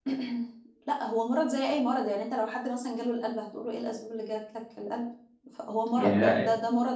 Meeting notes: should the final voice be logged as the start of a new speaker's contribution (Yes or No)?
No